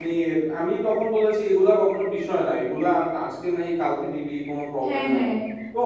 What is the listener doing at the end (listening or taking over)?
listening